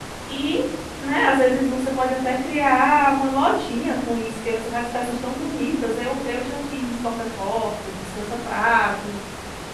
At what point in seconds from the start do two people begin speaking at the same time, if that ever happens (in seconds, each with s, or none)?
none